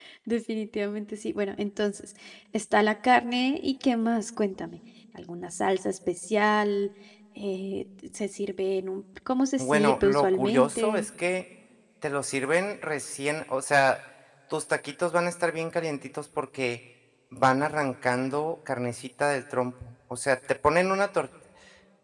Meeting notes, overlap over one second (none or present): present